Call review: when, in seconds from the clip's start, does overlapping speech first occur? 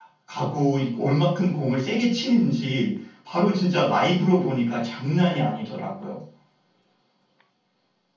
none

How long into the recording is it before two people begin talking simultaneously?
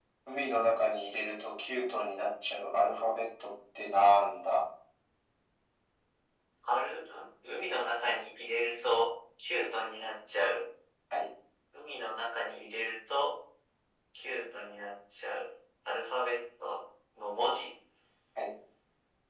none

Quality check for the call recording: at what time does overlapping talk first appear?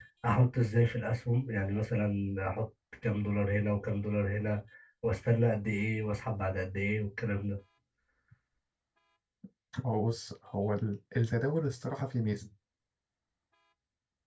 none

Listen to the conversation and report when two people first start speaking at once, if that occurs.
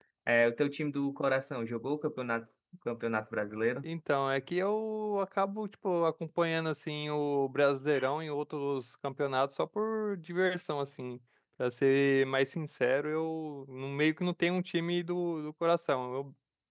none

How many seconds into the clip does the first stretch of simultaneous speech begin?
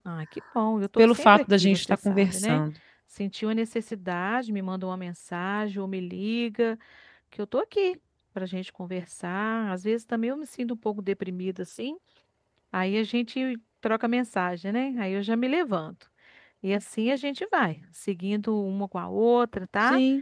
1 s

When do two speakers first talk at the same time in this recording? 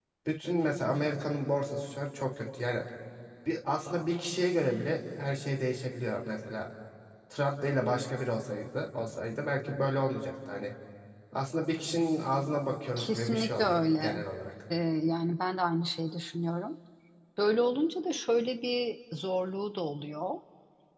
13 s

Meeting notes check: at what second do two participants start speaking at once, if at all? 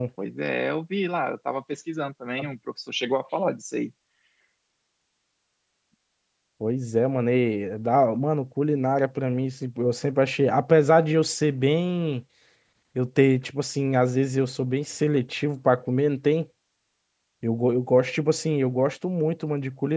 none

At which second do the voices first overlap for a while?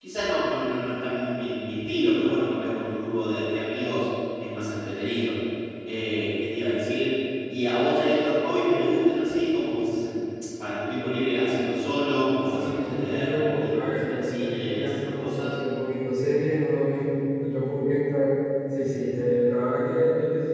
12 s

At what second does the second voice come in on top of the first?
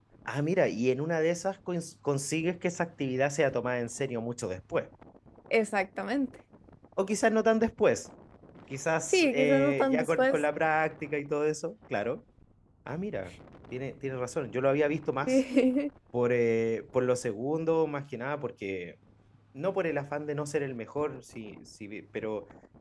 9 s

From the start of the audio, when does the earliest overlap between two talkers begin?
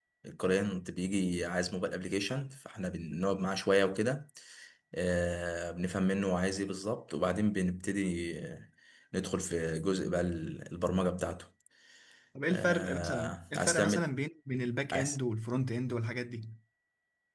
13 s

